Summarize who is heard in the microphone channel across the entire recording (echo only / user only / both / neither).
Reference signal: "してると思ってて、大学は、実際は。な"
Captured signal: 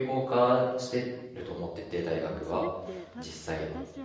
both